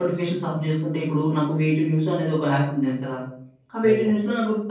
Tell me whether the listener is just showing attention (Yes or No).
Yes